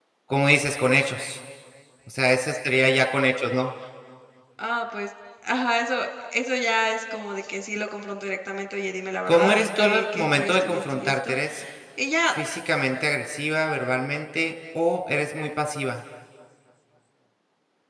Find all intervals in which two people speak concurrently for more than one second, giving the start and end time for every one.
9.2-11.4

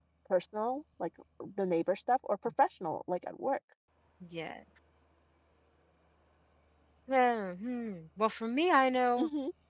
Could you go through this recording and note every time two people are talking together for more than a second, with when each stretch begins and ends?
none

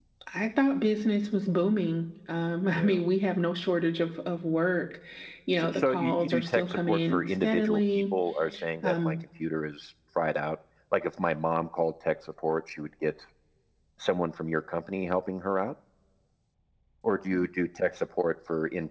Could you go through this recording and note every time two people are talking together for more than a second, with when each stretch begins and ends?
5.6-8.0

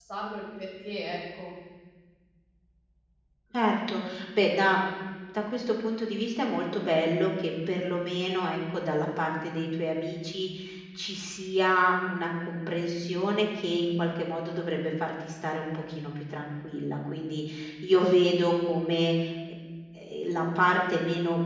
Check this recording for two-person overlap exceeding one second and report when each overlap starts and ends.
none

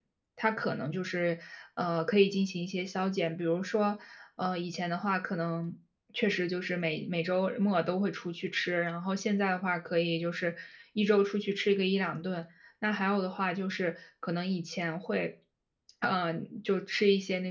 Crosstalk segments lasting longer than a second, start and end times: none

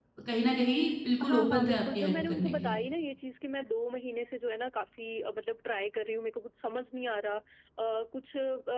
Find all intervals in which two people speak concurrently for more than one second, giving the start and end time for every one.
1.2-2.7

